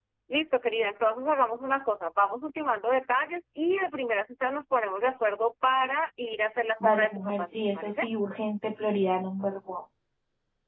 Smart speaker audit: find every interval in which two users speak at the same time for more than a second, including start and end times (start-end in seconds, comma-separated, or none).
6.8-8.0